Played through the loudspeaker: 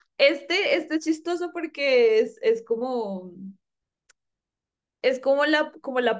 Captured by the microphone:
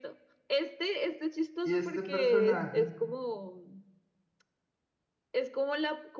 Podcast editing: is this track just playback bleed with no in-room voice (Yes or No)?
No